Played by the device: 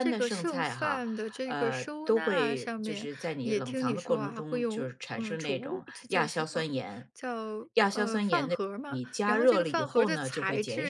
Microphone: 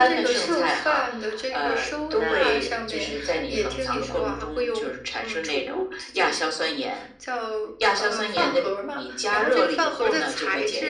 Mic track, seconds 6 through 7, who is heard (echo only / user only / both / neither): echo only